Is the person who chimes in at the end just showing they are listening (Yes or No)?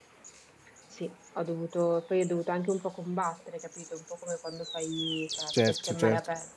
Yes